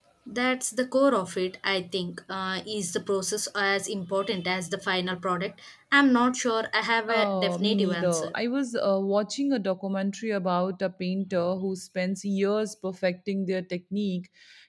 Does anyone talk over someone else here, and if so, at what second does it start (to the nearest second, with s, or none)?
7 s